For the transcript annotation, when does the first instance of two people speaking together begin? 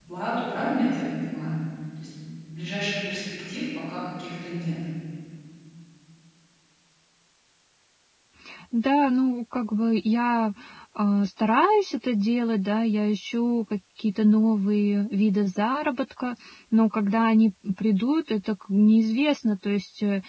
none

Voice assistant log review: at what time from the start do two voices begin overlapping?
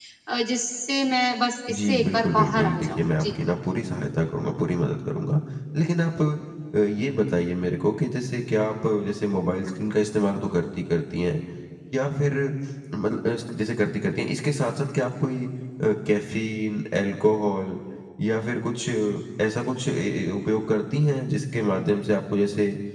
1.7 s

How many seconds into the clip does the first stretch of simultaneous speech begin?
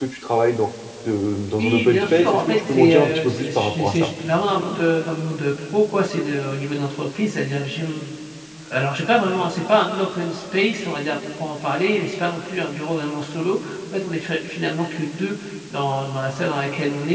1.6 s

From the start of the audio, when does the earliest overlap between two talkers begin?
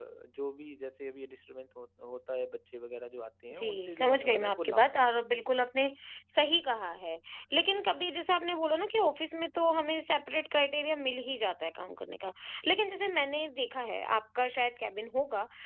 3.5 s

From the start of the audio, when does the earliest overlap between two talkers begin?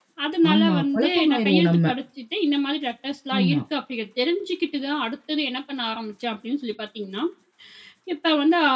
0.5 s

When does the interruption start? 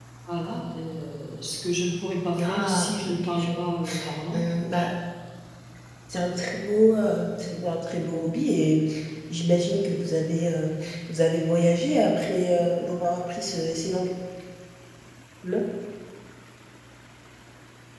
2.4 s

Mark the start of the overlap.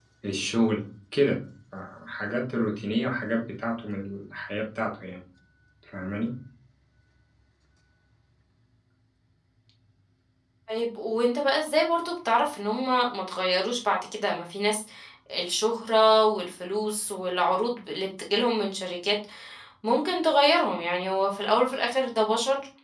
none

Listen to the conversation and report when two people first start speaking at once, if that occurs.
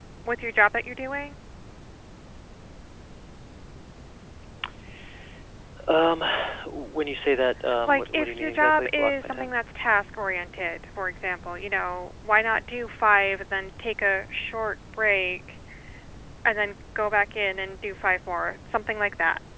7.9 s

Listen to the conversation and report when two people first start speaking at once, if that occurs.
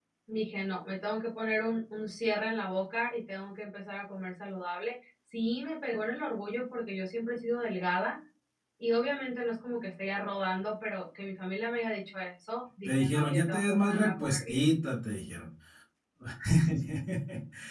12.8 s

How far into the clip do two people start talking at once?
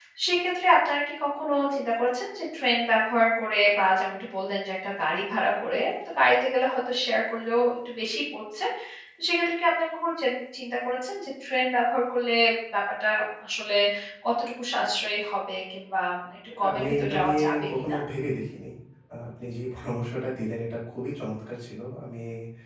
16.5 s

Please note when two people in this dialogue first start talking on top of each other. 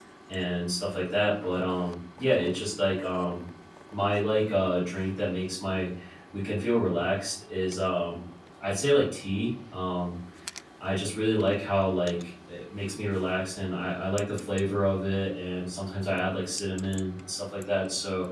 none

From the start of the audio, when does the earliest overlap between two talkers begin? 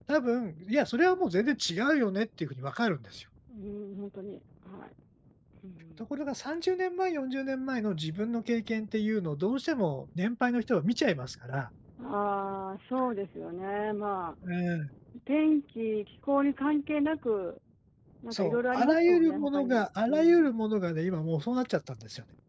18.3 s

